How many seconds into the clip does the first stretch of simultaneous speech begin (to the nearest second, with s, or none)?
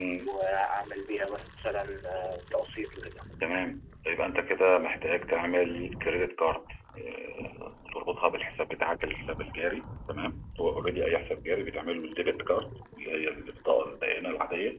none